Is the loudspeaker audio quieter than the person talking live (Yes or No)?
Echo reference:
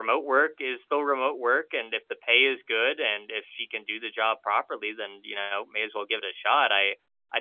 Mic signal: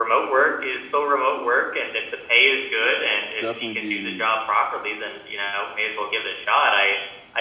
No